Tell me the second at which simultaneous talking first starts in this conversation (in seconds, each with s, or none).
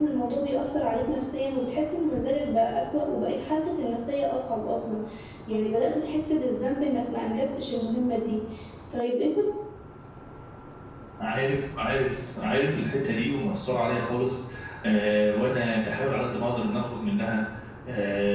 none